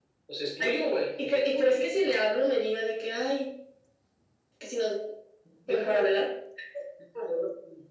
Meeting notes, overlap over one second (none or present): present